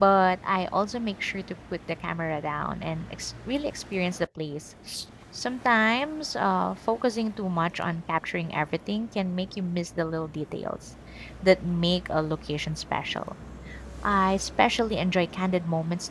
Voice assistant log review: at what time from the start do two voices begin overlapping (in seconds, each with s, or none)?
none